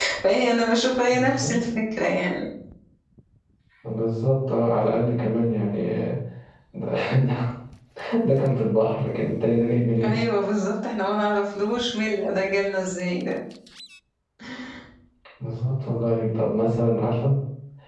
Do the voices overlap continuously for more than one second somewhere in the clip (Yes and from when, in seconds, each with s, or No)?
No